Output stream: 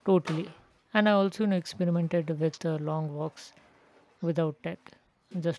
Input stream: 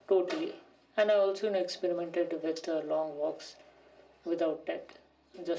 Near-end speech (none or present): none